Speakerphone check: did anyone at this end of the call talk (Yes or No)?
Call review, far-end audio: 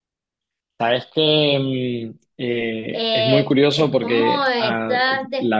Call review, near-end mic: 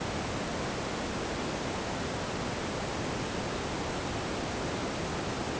No